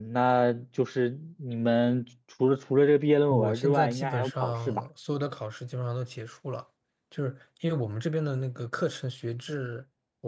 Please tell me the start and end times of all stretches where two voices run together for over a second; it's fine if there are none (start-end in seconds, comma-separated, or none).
3.3-4.8